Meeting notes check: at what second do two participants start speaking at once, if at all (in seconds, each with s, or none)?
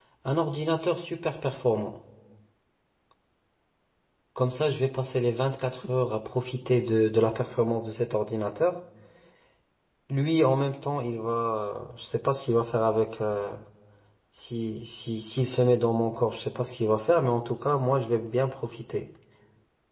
none